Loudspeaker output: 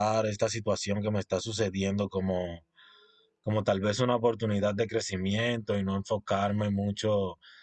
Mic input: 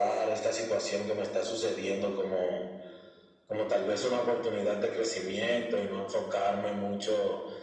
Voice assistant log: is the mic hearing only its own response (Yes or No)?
Yes